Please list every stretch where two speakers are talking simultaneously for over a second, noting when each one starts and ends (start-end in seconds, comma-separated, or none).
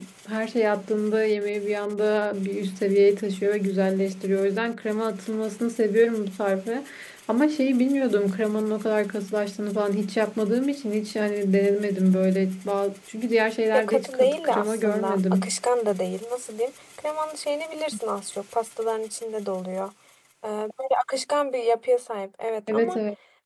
13.7-15.6